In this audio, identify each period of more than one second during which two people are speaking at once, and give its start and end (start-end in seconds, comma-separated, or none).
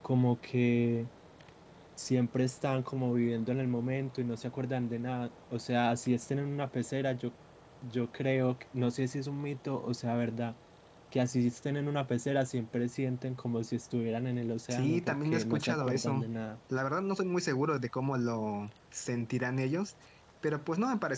14.7-16.2